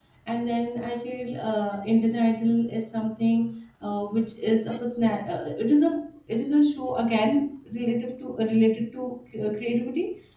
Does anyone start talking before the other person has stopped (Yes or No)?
No